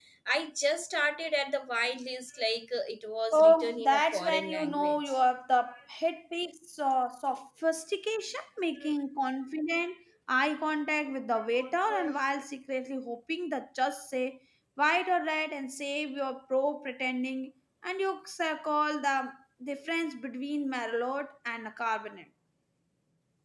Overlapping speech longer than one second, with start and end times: 3.3-5.0

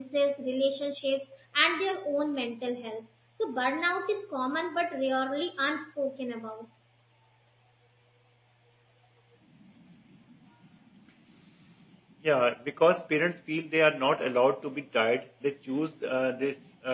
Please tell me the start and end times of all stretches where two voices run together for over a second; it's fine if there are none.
none

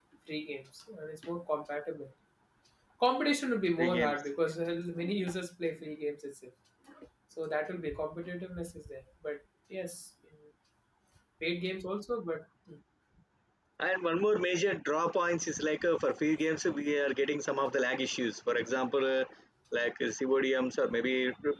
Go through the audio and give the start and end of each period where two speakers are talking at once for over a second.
none

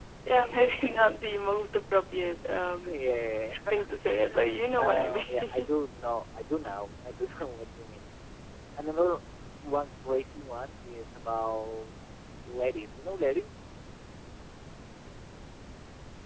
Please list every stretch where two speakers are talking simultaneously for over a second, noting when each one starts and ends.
4.0-5.7

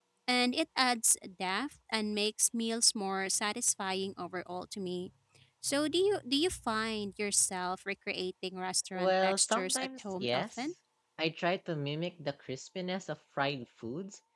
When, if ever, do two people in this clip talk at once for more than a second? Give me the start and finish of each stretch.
8.9-10.6

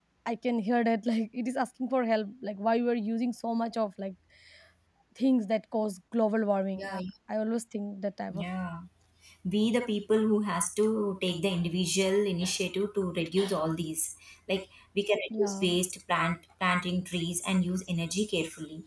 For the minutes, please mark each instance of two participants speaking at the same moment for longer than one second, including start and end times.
none

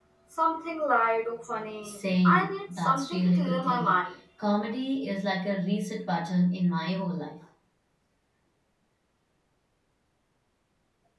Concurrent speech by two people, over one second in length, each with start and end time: 1.8-4.0

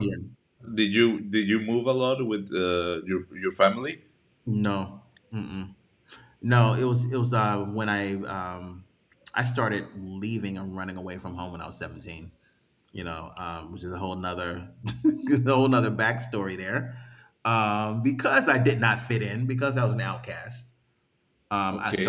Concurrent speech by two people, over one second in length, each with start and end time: none

